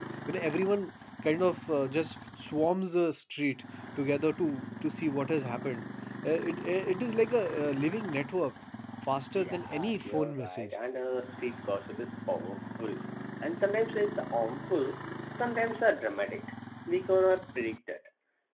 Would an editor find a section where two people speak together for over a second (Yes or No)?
Yes